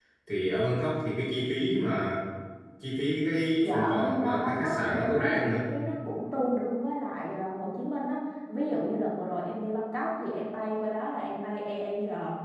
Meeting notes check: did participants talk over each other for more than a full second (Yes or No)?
Yes